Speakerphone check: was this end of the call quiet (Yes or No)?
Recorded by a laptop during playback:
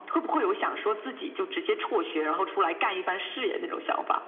Yes